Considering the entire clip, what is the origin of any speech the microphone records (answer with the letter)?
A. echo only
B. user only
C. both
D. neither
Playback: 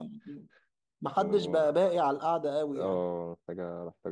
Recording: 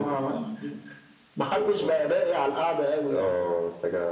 A